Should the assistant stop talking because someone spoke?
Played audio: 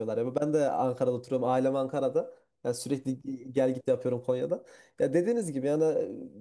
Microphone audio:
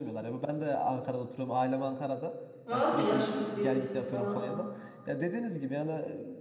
Yes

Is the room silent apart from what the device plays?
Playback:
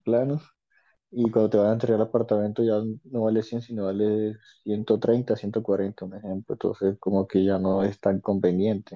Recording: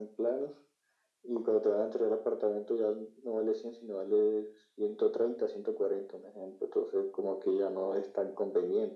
Yes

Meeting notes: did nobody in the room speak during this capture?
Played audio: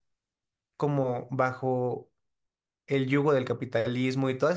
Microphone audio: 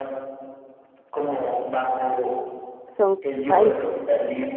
No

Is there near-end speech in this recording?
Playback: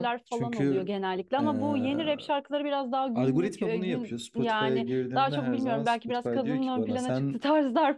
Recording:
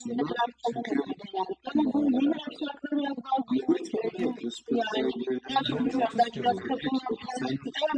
Yes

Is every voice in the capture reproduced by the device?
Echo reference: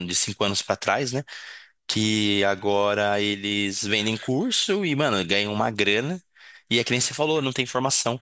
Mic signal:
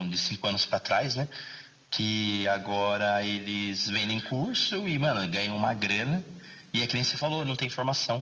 Yes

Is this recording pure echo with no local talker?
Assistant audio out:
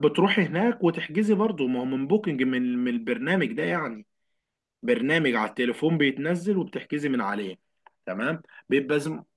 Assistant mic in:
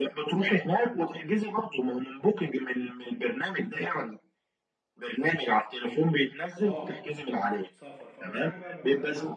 No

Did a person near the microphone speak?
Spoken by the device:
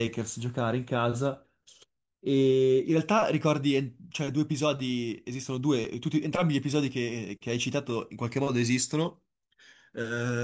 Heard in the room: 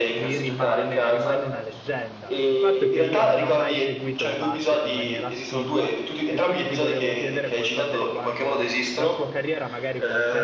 Yes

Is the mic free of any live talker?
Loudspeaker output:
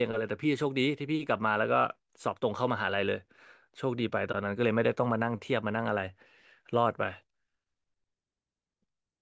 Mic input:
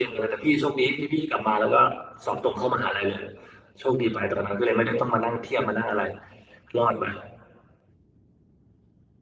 Yes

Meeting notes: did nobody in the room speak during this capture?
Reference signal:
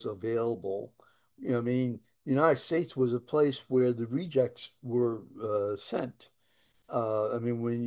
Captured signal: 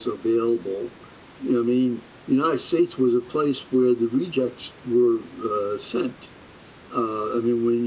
Yes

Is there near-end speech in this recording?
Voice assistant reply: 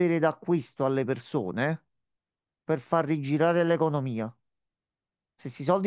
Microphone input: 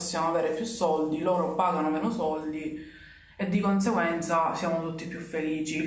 Yes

